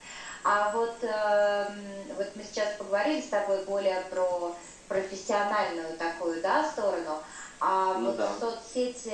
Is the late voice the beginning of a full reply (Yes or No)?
No